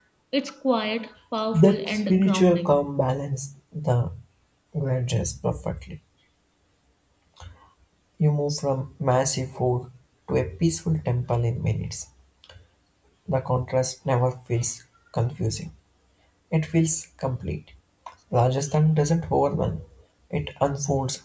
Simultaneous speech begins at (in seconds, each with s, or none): 1.5 s